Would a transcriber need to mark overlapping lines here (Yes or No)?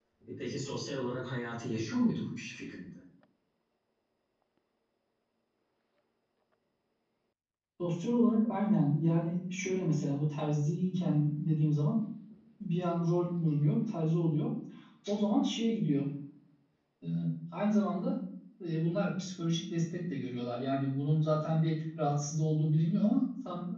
No